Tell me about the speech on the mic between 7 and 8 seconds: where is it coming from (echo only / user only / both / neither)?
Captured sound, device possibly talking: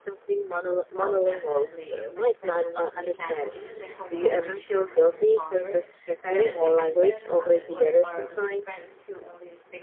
both